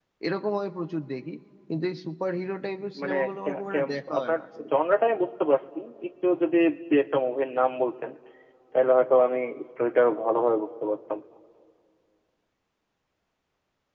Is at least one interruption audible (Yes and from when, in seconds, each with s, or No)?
Yes, from 2.9 s